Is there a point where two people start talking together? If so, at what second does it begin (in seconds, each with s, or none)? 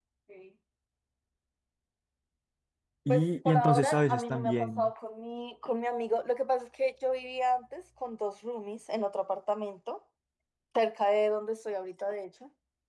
3.1 s